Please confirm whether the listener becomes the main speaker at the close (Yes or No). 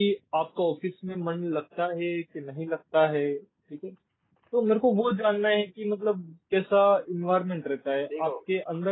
No